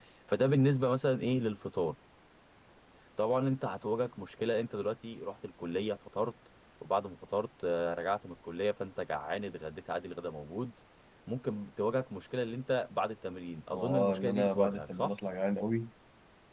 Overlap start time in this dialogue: 13.7 s

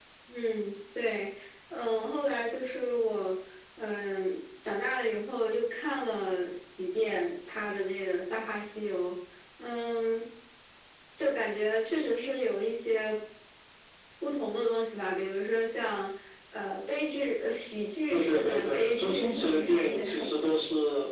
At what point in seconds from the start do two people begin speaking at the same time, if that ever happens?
18.1 s

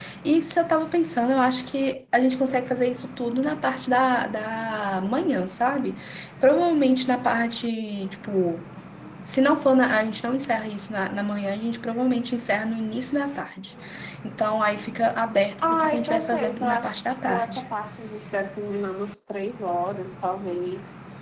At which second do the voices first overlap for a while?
15.6 s

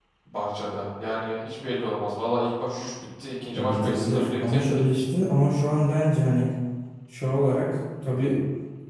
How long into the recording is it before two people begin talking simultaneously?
3.5 s

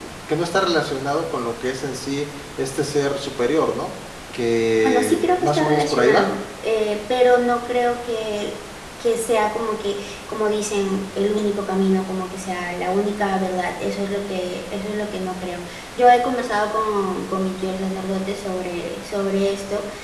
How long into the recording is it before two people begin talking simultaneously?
4.8 s

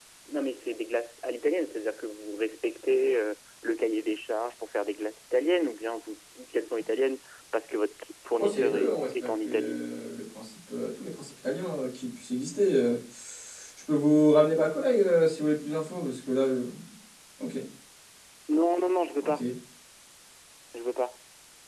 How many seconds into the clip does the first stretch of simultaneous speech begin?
8.4 s

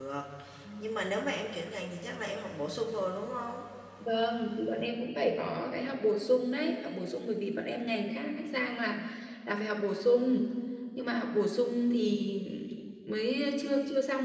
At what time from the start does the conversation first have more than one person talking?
none

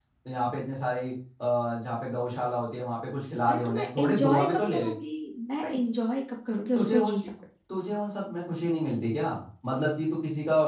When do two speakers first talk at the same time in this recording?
3.5 s

